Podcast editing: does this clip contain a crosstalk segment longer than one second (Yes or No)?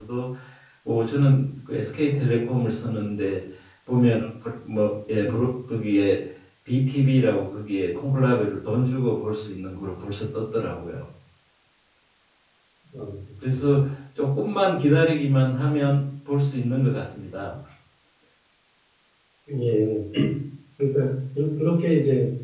No